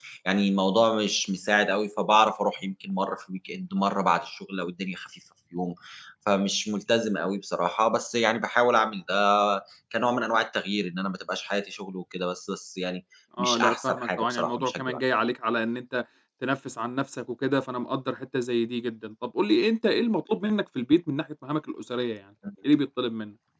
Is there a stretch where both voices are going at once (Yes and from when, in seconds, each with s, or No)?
Yes, from 13.4 s